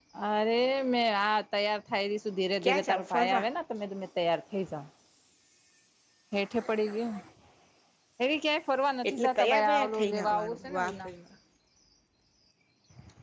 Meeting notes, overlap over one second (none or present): present